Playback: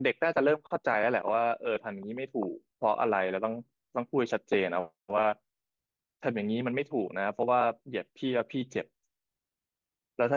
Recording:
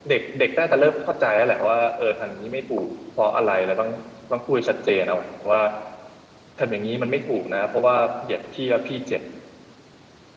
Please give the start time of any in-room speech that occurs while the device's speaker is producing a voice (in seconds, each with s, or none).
none